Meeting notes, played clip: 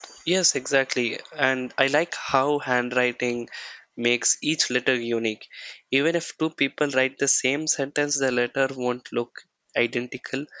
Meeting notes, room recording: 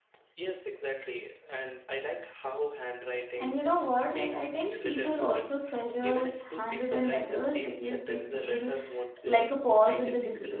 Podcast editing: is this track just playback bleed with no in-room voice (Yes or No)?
No